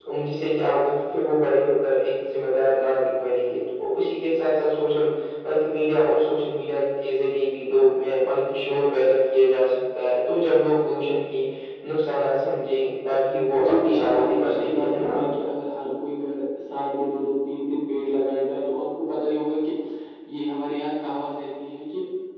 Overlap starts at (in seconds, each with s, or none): 13.6 s